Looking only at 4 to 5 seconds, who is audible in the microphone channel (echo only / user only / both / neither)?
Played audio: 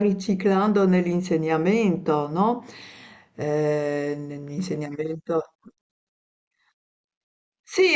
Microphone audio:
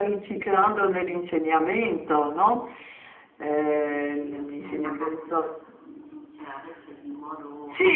both